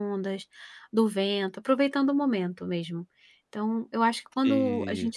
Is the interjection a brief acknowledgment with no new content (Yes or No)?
Yes